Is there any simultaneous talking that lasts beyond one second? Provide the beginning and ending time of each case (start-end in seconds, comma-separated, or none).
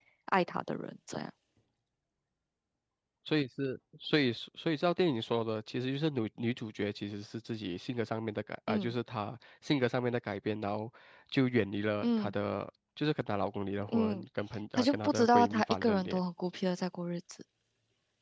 14.8-16.2